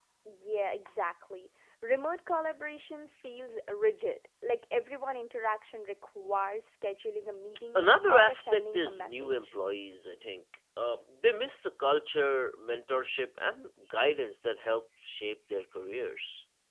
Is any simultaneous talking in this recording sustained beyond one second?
Yes, from 7.8 s

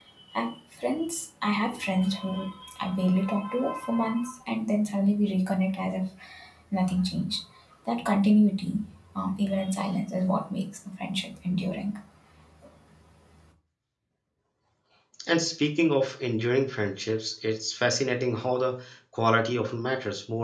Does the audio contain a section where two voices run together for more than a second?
No

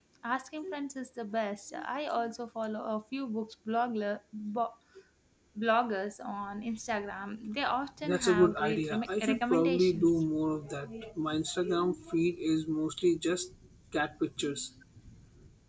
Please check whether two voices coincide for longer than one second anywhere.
Yes, from 8.0 s

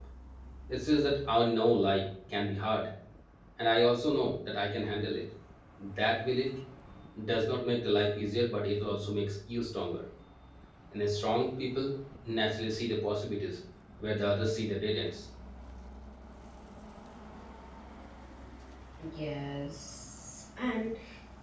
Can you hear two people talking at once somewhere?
No

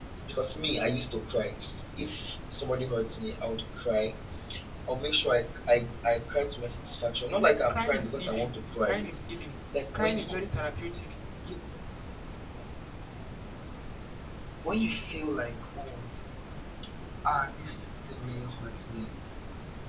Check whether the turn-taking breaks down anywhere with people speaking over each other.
Yes, from 7.7 s

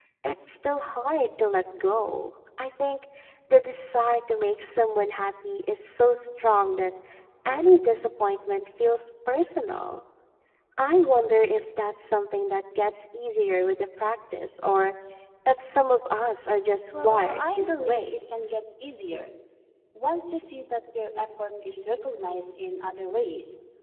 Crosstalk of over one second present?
Yes, from 16.9 s

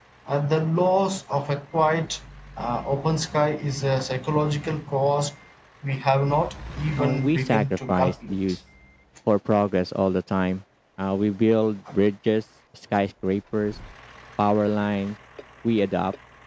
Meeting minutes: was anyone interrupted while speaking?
Yes, from 7.0 s

